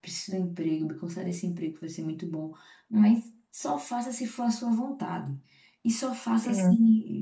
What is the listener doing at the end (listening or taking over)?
listening